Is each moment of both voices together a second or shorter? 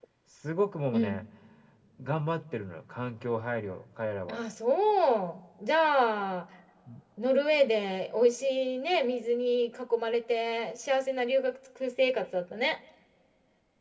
Yes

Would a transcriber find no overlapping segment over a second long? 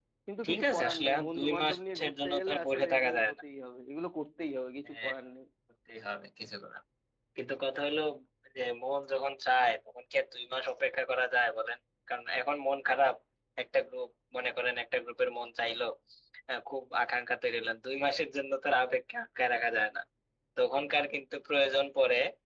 No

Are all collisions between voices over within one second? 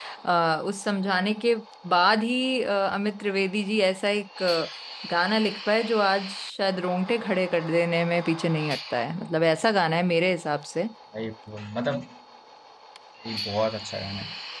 Yes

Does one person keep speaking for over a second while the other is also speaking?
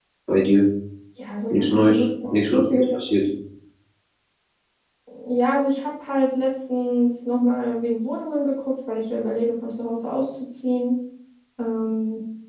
Yes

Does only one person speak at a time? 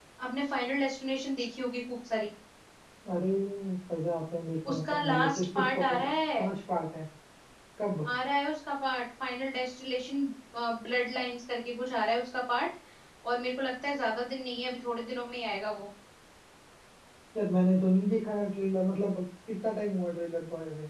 No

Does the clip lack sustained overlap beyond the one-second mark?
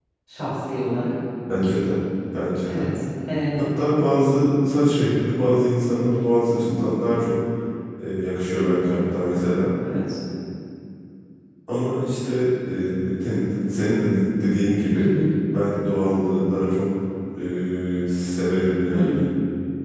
Yes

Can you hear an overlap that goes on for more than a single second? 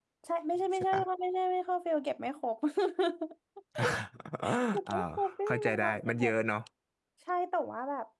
Yes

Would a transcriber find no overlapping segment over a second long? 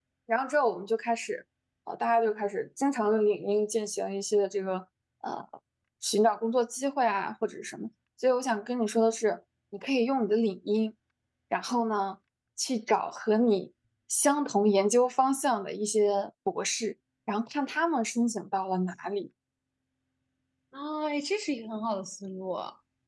Yes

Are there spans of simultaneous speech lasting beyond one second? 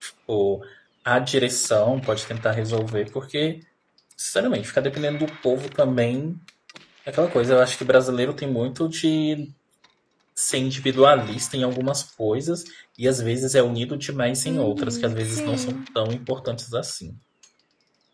Yes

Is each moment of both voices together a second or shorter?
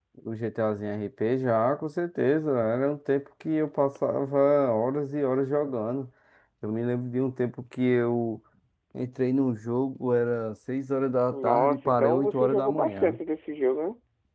No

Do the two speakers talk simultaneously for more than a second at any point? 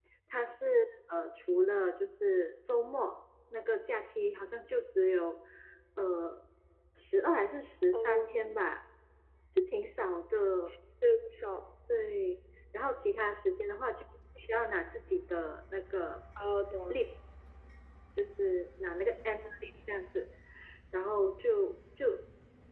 No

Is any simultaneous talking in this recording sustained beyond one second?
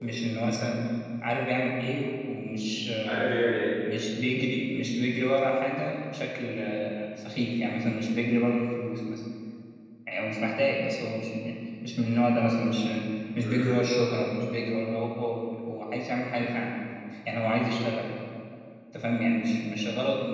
No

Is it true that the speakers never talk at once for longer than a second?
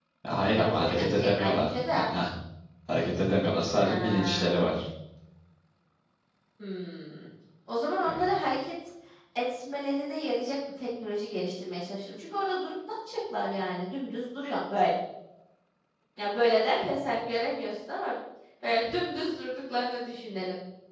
No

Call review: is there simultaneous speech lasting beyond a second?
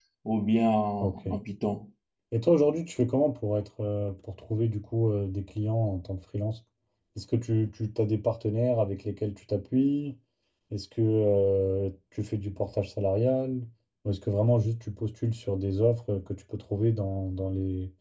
No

